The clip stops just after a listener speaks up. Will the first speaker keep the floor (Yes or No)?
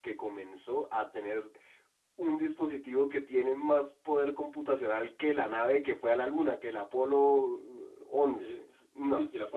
No